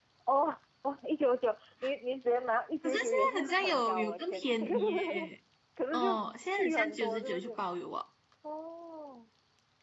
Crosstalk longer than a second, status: present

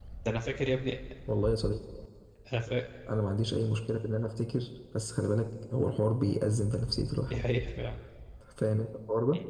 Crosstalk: none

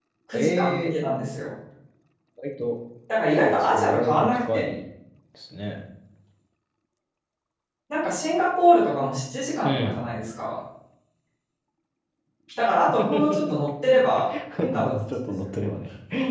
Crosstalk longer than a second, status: present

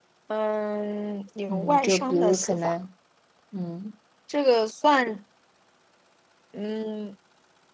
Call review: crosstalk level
present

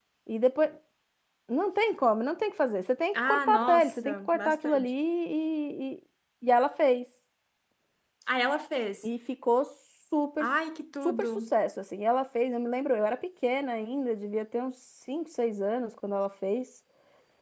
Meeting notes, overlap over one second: present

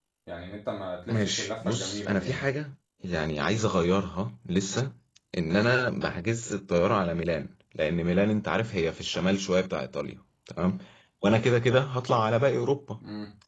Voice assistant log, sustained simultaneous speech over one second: present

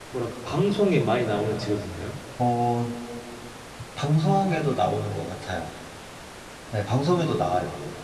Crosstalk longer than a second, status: none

